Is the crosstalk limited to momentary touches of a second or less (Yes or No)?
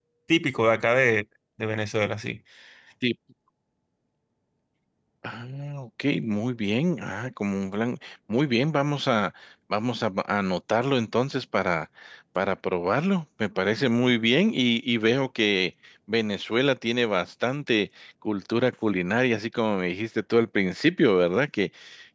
Yes